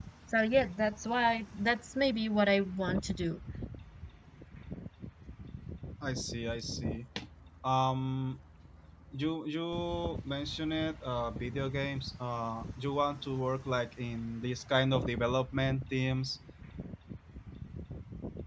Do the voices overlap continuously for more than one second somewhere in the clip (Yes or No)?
No